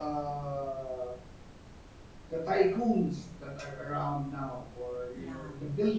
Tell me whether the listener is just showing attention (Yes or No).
Yes